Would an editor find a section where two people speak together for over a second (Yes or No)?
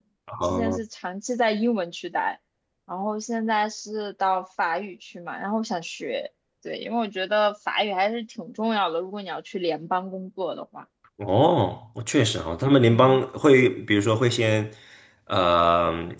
No